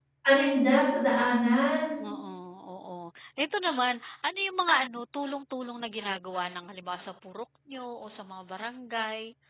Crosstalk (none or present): none